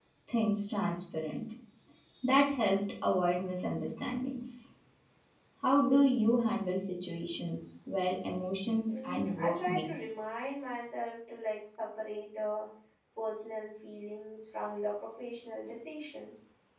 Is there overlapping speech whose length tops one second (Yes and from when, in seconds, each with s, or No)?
Yes, from 8.9 s